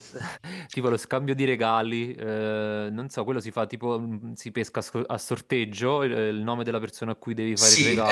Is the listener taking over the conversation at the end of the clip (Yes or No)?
Yes